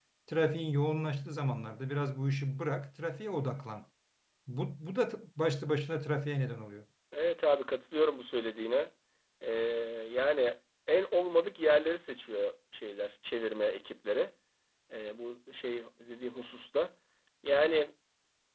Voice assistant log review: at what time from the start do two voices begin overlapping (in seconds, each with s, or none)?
none